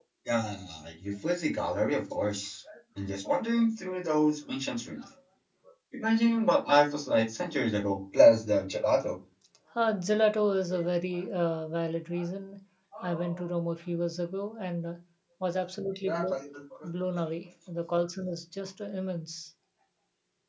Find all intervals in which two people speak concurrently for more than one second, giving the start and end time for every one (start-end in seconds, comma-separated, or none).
none